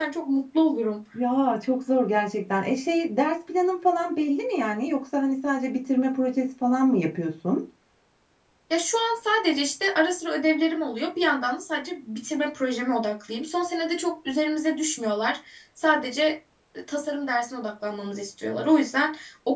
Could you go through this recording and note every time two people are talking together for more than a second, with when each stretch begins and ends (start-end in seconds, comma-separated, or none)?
none